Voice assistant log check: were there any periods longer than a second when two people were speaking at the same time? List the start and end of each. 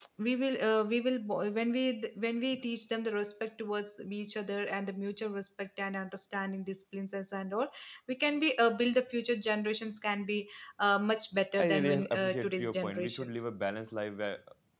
11.6-13.4

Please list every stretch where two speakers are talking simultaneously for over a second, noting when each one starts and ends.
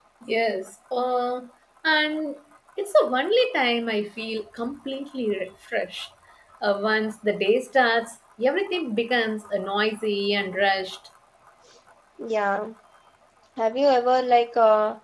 none

